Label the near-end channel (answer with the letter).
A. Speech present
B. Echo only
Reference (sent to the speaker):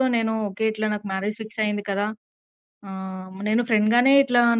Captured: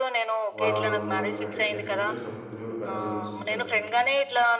A